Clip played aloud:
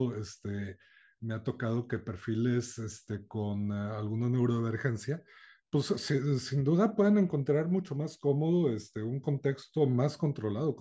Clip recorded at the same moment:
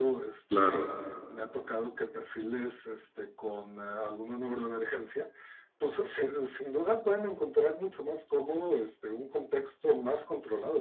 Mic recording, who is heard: both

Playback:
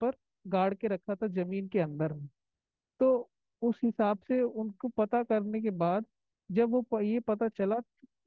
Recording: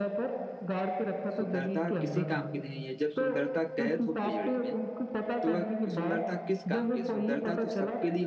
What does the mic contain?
both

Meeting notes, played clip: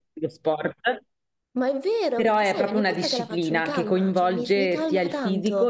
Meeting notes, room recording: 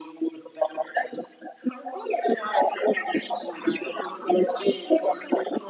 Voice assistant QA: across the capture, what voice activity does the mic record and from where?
echo only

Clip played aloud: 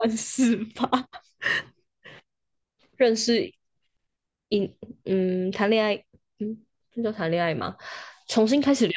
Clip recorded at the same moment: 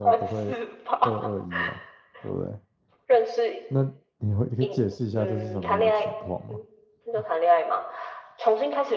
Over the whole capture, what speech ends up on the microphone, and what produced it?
both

